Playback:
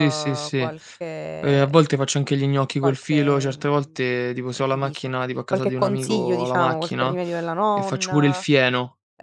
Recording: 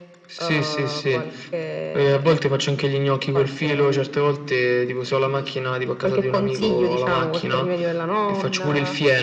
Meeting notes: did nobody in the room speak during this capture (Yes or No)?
Yes